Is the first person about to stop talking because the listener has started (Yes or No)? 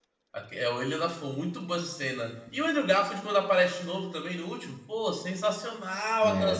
No